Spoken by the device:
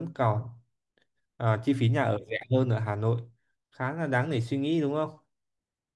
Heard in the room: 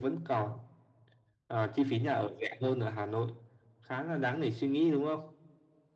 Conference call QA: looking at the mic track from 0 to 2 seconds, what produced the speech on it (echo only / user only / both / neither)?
echo only